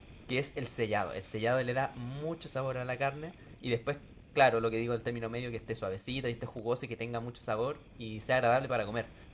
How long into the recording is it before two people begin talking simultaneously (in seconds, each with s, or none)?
none